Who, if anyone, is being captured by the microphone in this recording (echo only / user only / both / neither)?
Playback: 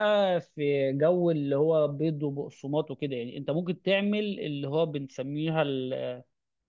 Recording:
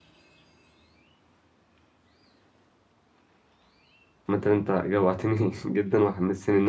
user only